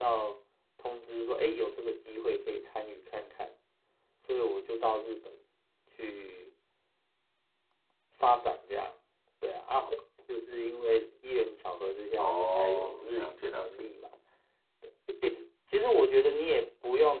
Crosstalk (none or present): present